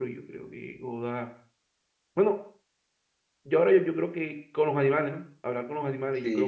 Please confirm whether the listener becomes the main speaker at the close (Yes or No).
Yes